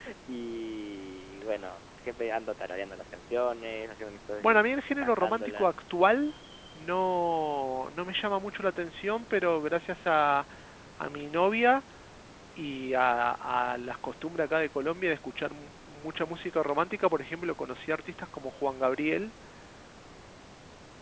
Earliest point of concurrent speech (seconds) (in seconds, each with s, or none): 4.4 s